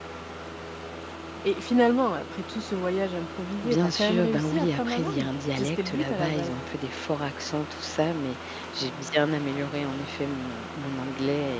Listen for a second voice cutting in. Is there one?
Yes, from 3.6 s

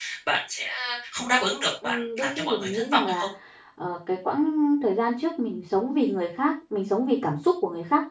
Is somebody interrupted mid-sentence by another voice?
Yes, from 1.8 s

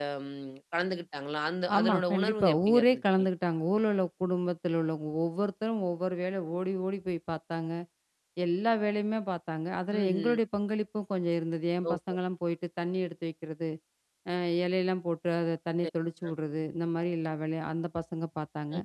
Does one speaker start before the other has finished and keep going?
Yes, from 1.8 s

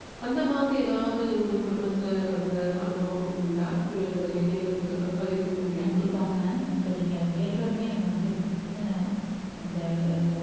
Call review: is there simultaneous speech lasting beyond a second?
No

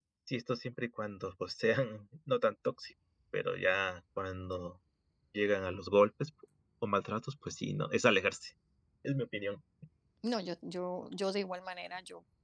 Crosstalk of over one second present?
No

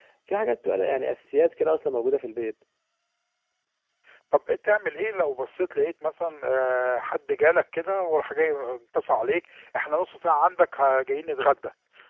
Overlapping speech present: No

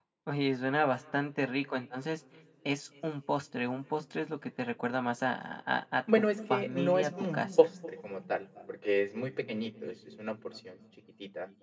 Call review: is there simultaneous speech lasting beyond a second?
Yes, from 6.1 s

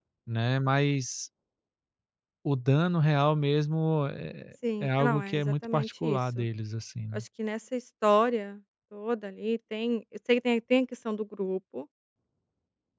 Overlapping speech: Yes, from 4.8 s

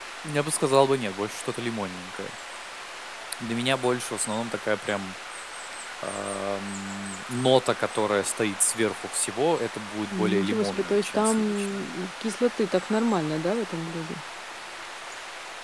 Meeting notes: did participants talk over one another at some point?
Yes, from 10.1 s

